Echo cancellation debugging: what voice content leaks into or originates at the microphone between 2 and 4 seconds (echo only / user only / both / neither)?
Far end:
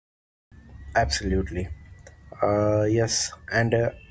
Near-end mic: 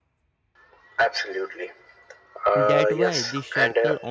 both